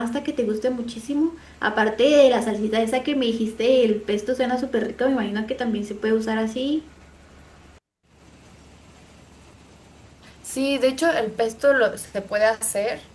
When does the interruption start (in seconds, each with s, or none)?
none